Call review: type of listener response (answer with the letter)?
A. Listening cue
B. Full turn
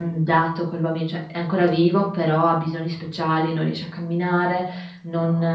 A